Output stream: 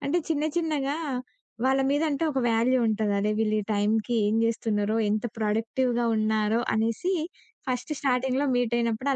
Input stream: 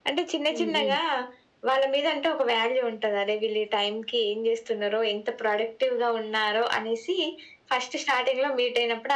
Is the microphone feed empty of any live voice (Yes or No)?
No